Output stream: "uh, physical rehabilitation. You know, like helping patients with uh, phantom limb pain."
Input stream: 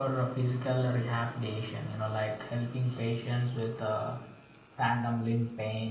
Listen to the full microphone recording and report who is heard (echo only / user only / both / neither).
echo only